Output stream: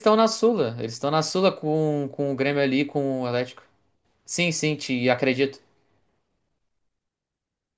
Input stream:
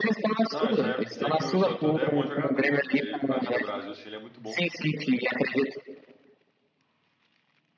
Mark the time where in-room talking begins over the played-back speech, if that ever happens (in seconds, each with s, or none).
0.5 s